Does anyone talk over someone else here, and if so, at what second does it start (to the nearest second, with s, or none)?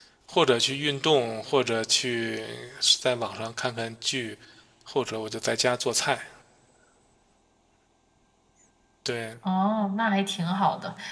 none